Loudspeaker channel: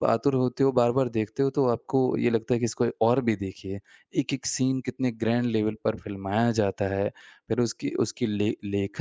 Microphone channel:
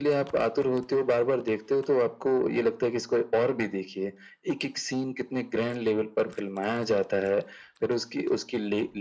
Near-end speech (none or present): none